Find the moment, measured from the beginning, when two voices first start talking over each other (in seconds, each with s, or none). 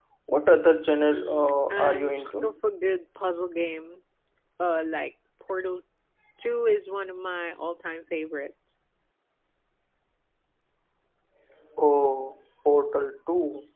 1.0 s